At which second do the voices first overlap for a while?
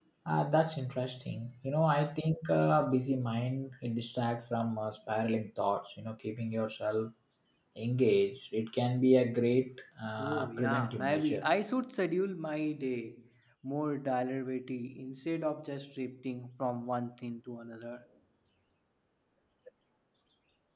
10 s

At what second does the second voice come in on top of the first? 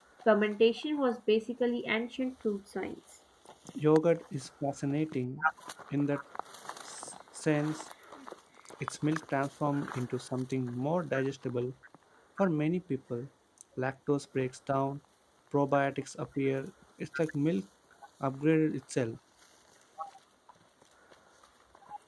none

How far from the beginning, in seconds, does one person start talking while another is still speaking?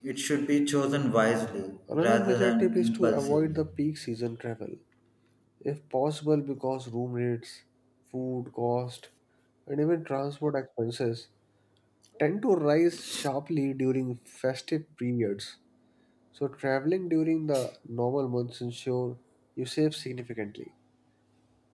2 s

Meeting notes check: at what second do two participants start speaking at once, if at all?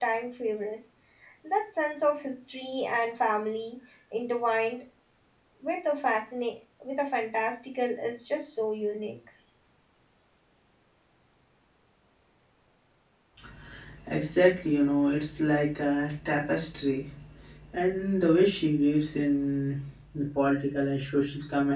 none

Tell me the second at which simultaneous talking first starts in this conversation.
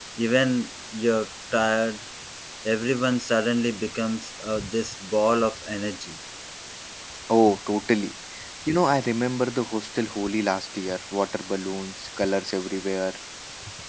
none

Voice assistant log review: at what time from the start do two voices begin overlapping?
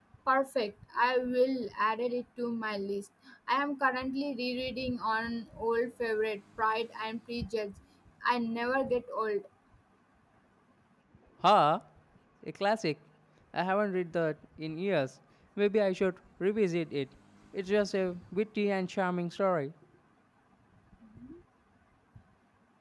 none

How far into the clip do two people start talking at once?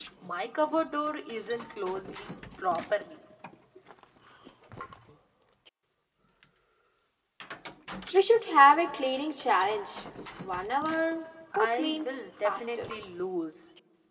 12 s

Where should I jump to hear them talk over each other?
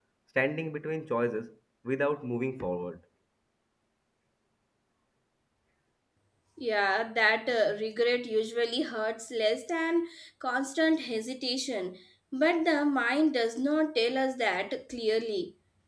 none

